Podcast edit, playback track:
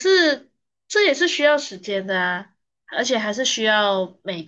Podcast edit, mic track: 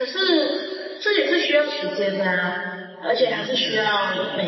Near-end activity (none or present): present